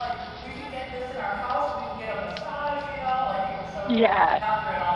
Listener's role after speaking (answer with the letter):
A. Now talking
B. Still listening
B